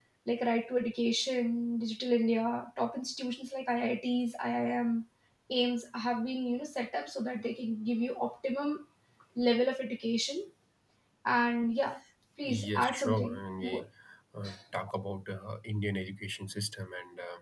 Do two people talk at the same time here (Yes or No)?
Yes